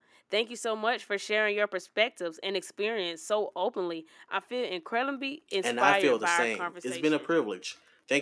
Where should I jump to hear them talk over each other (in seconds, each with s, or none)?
5.6 s